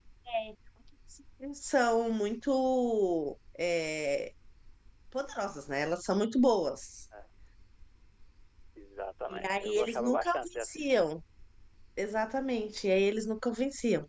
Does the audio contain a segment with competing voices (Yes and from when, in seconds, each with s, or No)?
Yes, from 9.3 s